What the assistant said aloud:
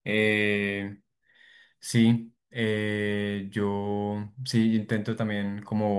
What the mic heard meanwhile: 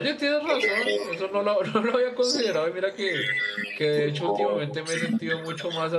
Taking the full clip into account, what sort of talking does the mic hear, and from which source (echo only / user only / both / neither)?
both